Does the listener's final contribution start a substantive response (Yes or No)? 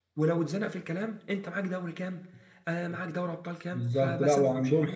Yes